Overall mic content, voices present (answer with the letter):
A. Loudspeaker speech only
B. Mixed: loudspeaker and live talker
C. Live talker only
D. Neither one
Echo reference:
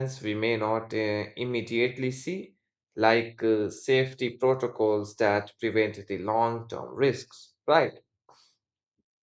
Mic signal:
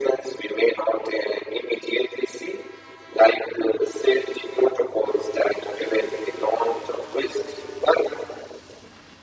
A